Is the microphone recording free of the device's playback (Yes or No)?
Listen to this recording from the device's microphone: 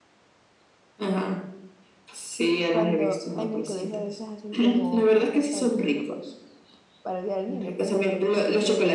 No